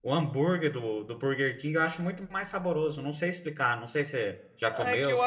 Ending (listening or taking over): taking over